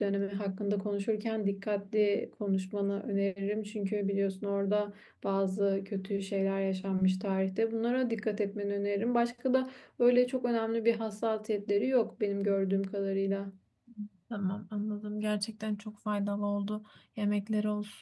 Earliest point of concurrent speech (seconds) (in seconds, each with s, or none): none